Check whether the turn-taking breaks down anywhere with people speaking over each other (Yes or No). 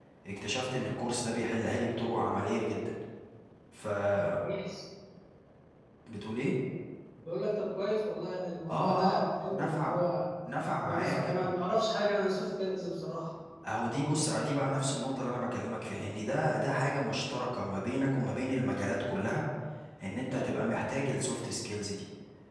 Yes